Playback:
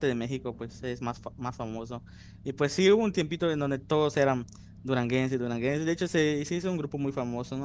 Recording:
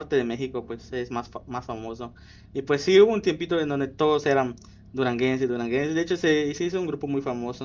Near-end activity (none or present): none